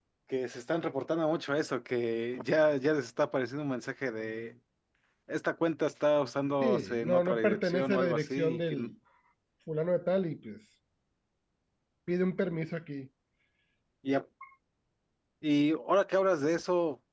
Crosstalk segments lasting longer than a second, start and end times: 6.6-8.9

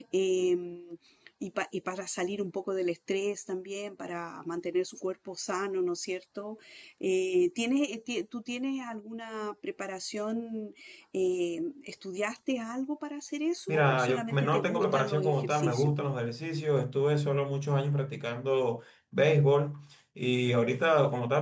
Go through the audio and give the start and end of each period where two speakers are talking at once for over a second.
13.7-15.9

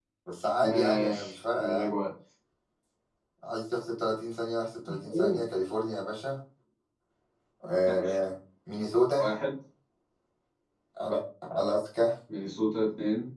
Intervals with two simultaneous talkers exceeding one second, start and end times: 0.6-1.9

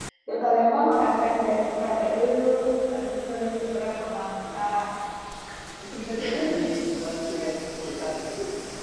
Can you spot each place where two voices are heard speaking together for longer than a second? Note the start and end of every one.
none

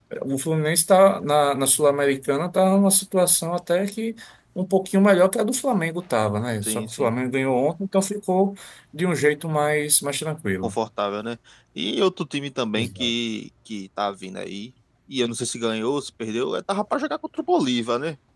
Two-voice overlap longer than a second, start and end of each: none

